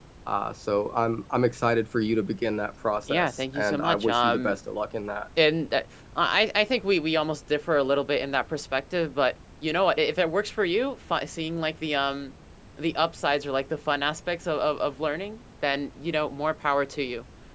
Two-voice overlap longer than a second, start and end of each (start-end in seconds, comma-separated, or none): 3.1-4.6